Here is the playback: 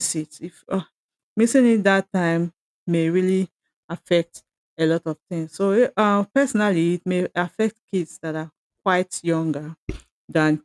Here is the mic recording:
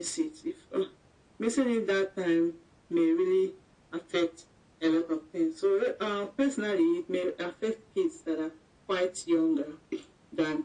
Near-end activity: none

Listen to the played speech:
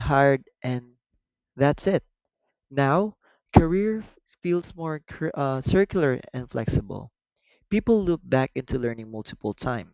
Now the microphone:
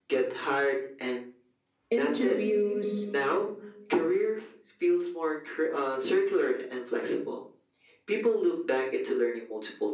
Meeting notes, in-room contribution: present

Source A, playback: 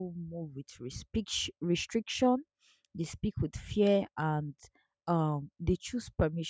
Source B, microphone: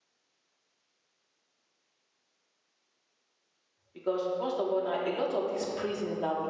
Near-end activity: present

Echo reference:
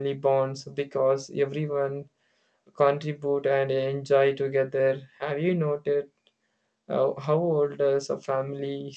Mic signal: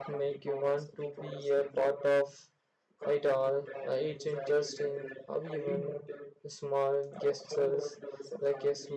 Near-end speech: present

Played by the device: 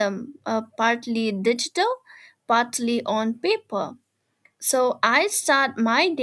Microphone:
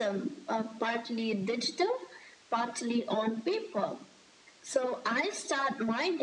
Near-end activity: none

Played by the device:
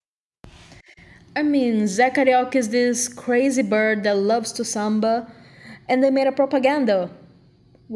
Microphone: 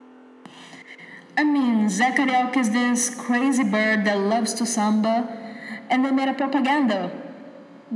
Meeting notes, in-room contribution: none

